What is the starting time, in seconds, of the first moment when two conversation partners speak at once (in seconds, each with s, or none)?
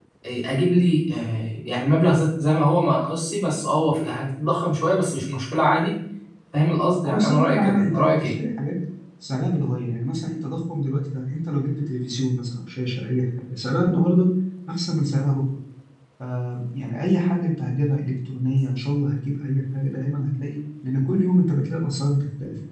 7.0 s